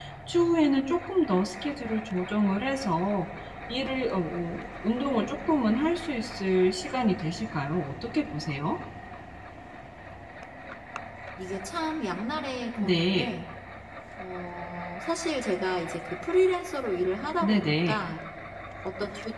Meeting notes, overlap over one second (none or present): none